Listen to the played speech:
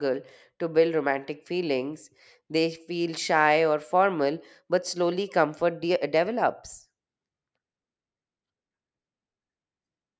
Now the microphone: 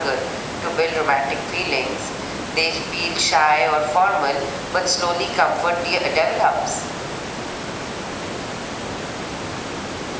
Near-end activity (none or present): none